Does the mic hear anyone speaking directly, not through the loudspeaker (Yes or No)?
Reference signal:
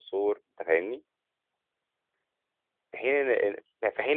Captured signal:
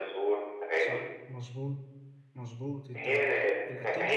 Yes